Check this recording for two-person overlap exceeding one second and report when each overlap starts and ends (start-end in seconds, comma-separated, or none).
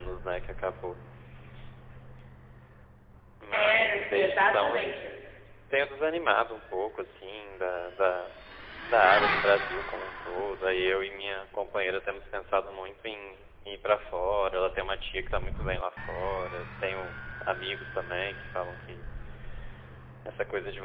3.5-4.8